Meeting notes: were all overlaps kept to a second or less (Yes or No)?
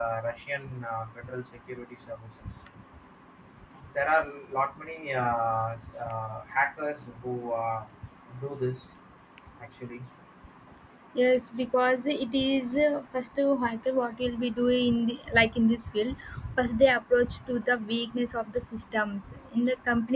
Yes